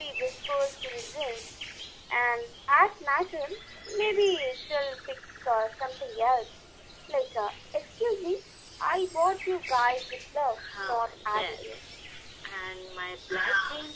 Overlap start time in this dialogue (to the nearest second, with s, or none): 11 s